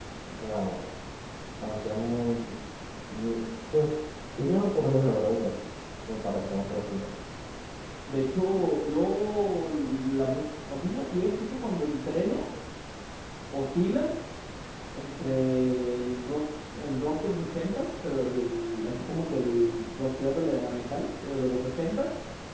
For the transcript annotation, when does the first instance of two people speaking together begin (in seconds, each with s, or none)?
none